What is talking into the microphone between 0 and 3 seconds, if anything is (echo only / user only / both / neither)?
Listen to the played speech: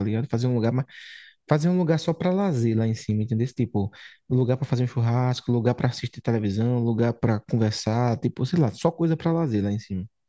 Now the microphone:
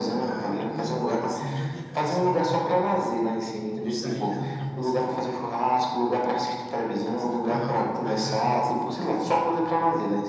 both